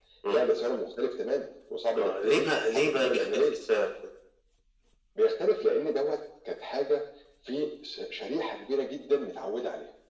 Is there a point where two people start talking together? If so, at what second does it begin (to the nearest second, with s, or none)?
2 s